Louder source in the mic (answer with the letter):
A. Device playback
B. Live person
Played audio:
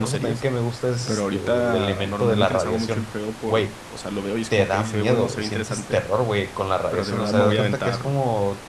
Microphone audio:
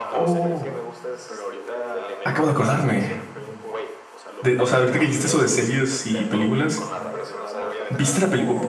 B